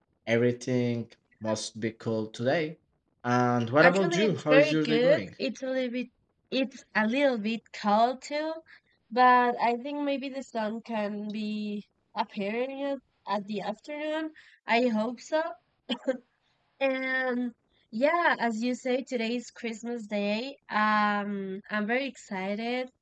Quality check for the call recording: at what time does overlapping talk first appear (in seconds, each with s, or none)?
3.8 s